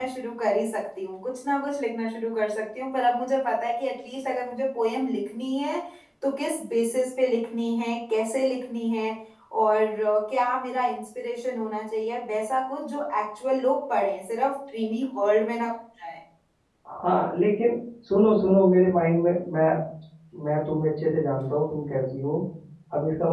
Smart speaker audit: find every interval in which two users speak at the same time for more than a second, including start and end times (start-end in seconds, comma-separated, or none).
none